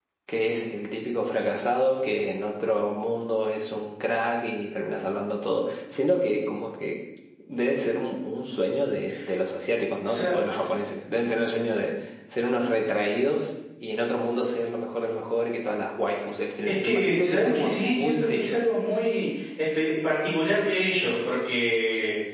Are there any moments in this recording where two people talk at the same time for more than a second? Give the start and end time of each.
16.6-18.6

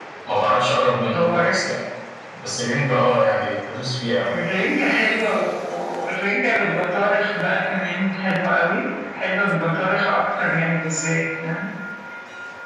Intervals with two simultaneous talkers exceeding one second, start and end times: none

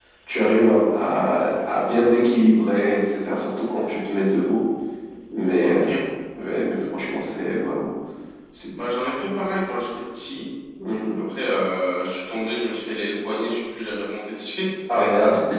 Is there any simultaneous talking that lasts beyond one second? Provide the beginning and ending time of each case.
none

